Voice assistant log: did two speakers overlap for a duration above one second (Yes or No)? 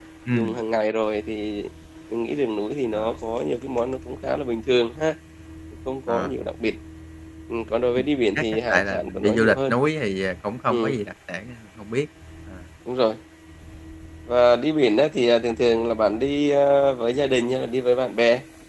Yes